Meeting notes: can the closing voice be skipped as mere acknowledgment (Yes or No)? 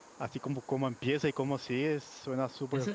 No